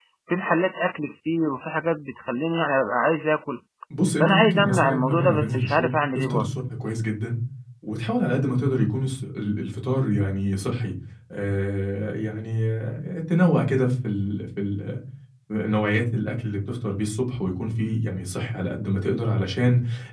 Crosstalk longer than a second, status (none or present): present